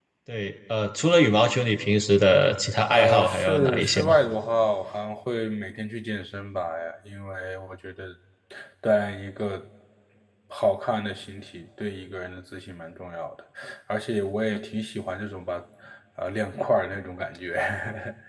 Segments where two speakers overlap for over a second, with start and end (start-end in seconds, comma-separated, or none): 2.9-4.1